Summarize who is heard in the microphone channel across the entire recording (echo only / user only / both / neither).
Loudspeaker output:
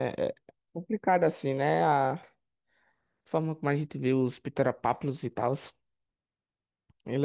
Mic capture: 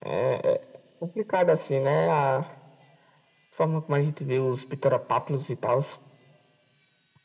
echo only